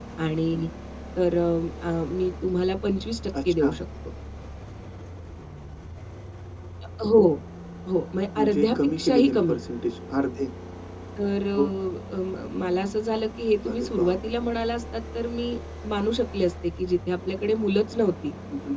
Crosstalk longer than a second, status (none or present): present